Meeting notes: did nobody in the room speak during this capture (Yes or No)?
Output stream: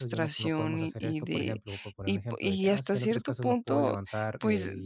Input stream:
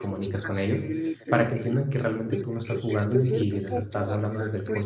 No